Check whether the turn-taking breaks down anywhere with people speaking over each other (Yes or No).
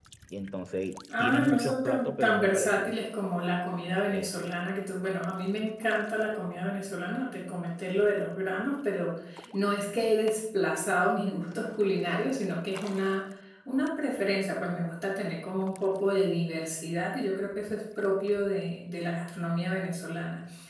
Yes